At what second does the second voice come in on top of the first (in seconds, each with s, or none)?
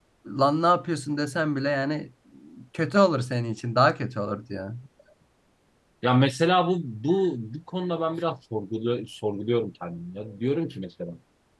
none